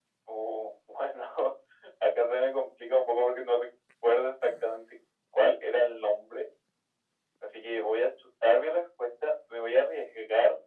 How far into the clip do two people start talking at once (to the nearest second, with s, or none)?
none